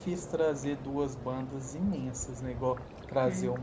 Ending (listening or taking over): listening